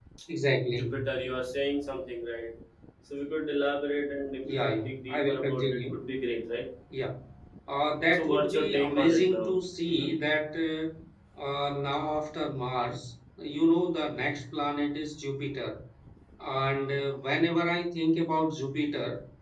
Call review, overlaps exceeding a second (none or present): present